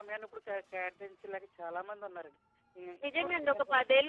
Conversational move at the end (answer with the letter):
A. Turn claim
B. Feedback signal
A